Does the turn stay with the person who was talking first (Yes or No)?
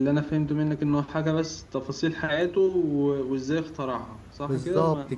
No